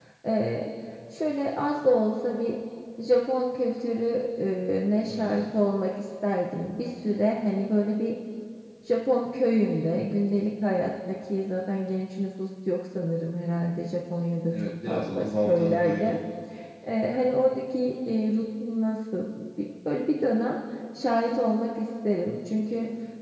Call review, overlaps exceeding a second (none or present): present